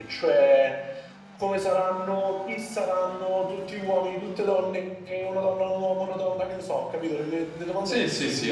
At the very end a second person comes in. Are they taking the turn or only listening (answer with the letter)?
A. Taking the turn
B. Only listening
A